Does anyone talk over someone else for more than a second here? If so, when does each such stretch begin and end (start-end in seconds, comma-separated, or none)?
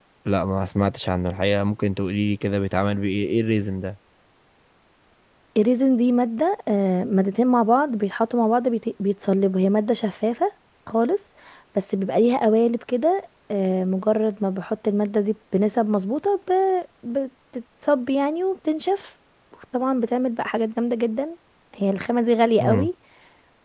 none